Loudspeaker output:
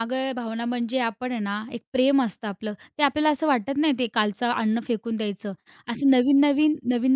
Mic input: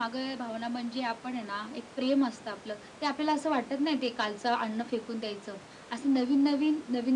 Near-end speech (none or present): none